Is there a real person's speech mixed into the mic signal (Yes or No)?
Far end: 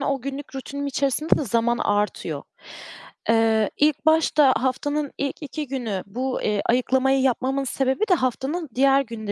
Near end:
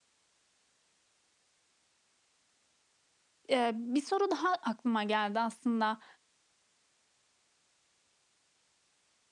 Yes